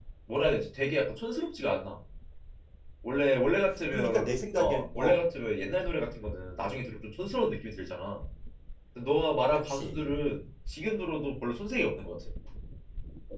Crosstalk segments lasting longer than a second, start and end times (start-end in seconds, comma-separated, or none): 3.9-5.2